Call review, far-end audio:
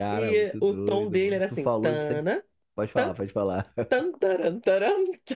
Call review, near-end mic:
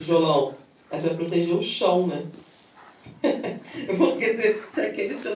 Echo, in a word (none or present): none